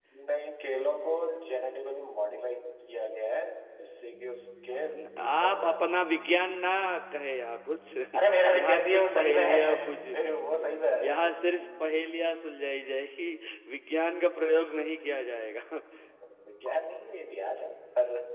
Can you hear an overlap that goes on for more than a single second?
Yes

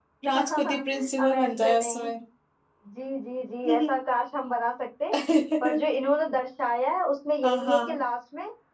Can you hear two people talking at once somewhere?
Yes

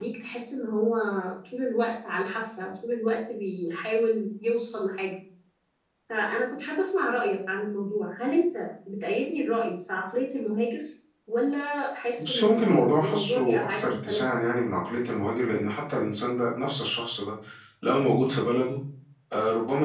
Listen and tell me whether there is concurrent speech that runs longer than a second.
Yes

